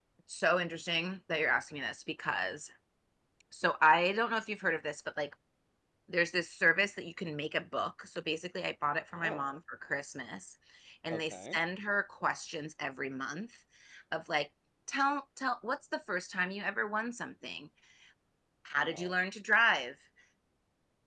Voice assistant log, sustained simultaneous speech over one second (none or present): none